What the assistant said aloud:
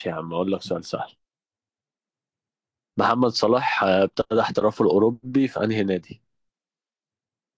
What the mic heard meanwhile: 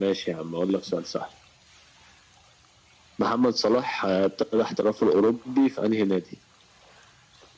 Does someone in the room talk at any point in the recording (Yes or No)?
No